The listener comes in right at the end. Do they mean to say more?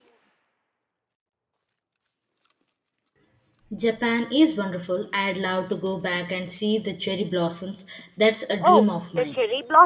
Yes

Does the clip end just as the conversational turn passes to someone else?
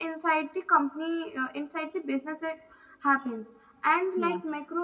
No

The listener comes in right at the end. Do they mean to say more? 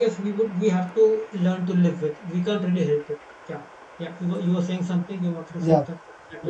Yes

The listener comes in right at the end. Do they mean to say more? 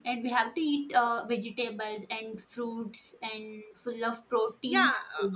Yes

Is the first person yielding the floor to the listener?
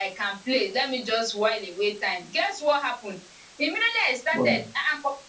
No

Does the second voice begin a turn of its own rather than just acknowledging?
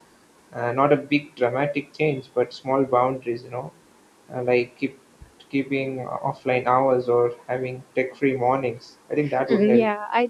Yes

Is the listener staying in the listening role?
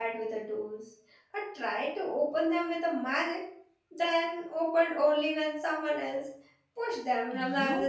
No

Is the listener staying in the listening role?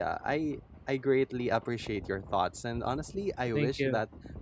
Yes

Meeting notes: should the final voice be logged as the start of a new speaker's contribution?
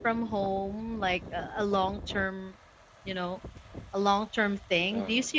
No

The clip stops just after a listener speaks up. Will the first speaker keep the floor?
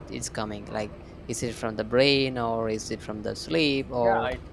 No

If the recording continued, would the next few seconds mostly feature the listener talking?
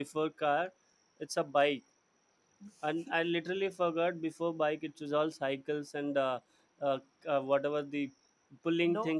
No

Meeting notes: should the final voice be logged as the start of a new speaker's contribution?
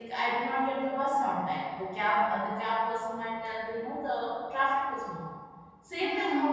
No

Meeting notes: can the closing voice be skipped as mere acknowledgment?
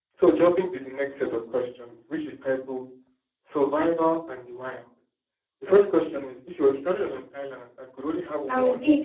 No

